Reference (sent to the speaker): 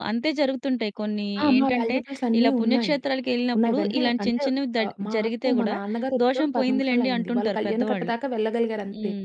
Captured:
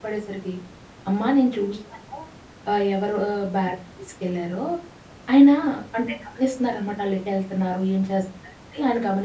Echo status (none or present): none